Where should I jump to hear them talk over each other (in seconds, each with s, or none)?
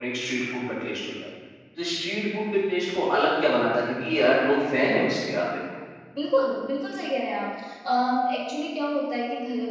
none